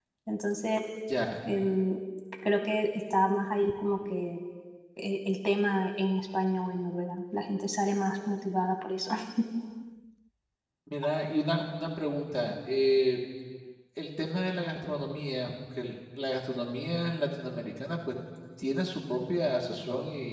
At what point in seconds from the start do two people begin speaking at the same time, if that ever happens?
none

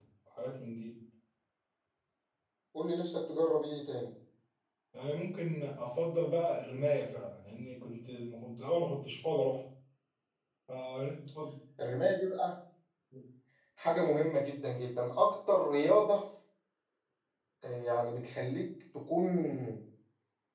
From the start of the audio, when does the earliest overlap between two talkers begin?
none

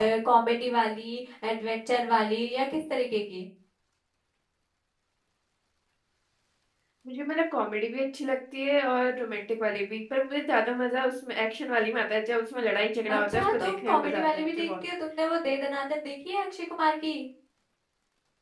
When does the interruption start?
13 s

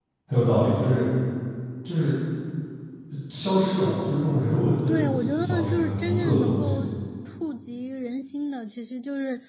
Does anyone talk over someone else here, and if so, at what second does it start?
5 s

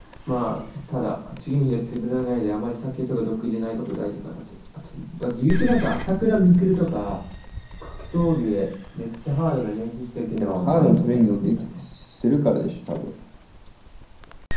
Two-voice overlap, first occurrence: 10 s

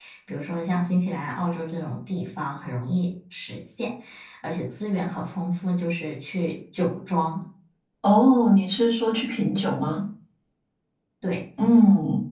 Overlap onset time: none

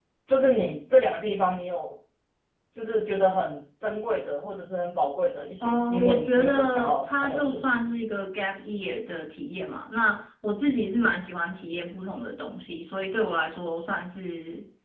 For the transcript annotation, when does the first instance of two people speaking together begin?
6 s

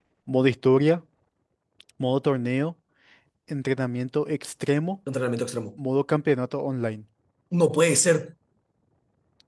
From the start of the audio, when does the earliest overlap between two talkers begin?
none

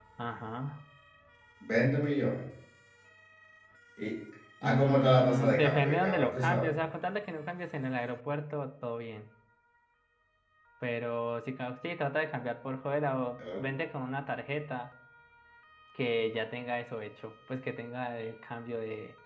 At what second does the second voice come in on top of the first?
5 s

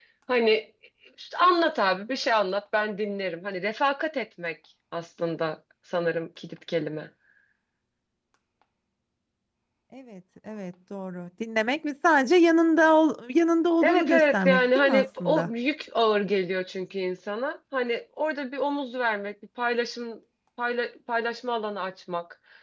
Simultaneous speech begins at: 14 s

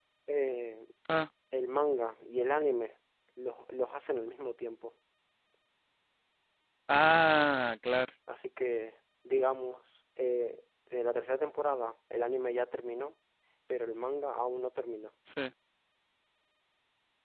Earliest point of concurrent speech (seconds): none

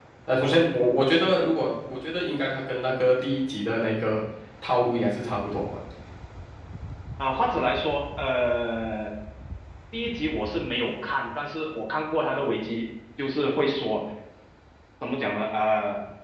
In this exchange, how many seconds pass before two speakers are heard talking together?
none

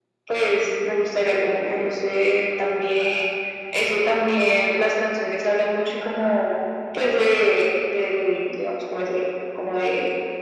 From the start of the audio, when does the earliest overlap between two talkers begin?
1 s

